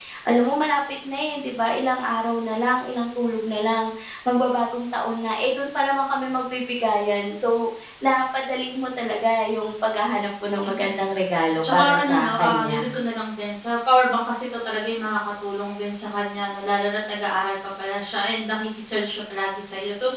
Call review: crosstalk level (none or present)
present